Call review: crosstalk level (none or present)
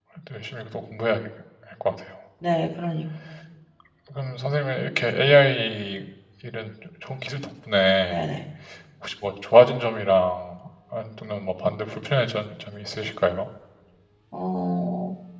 none